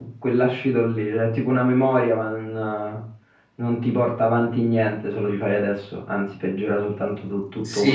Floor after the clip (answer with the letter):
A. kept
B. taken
B